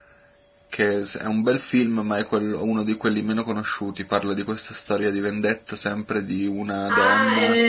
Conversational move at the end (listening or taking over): taking over